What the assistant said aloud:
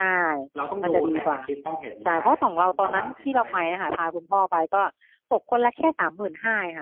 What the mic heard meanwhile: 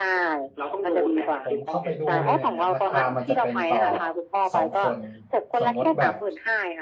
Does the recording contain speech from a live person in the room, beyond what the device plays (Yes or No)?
Yes